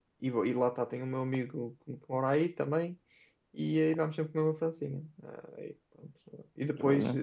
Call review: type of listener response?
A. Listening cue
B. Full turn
A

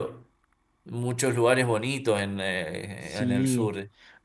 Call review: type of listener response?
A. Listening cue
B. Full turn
B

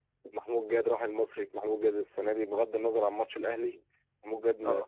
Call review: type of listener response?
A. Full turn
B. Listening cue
B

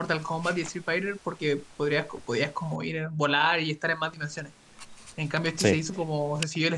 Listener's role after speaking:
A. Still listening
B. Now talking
A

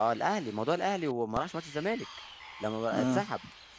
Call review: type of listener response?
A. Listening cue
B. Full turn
A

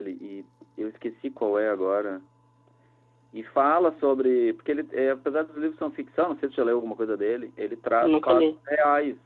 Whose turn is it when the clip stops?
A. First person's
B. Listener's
A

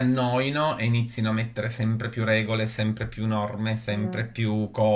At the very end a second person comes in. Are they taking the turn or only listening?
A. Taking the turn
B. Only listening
B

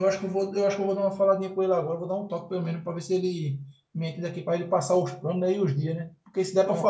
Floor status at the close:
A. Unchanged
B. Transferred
A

